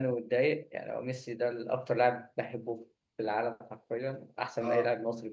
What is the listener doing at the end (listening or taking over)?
listening